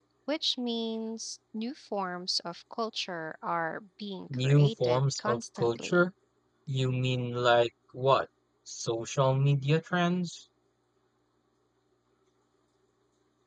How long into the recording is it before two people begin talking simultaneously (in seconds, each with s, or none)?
4.3 s